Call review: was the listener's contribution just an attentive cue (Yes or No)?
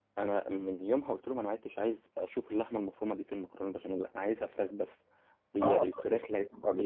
No